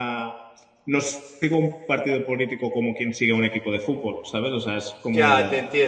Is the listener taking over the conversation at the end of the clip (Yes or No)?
Yes